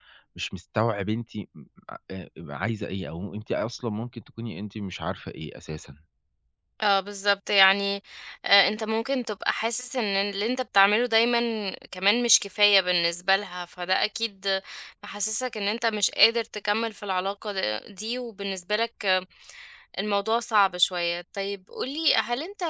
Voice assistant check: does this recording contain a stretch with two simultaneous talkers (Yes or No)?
No